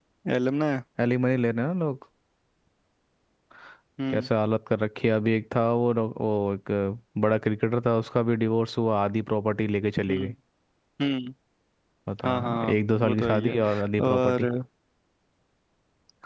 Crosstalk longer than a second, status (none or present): present